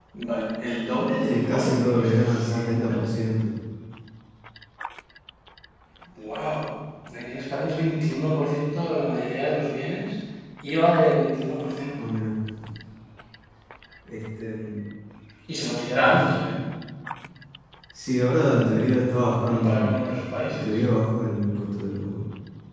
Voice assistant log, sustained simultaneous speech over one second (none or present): present